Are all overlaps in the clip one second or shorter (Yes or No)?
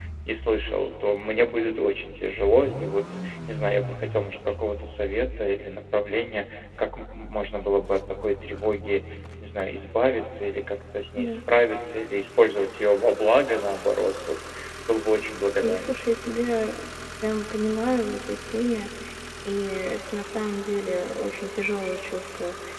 Yes